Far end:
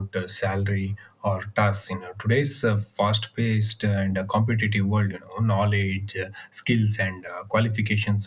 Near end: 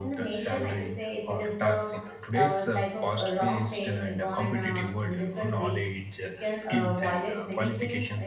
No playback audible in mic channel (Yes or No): No